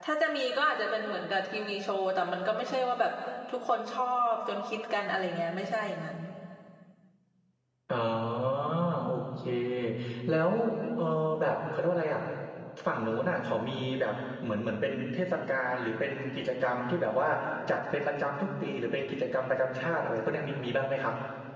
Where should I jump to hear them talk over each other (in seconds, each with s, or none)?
none